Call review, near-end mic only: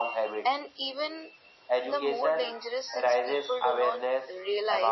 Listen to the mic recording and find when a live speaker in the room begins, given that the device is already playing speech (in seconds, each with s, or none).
none